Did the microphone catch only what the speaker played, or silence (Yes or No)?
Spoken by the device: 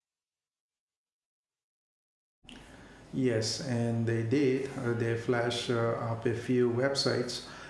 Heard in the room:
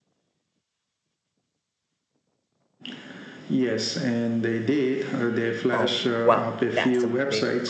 No